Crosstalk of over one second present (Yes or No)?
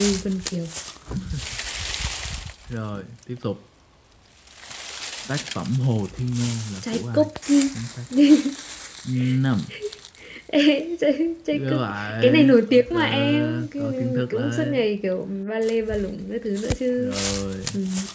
Yes